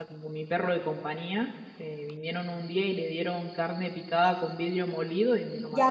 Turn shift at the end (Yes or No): Yes